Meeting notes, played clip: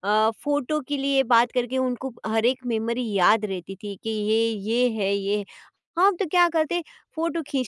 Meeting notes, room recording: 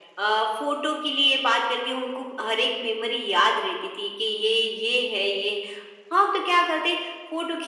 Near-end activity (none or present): none